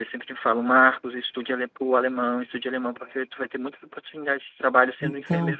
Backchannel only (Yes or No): Yes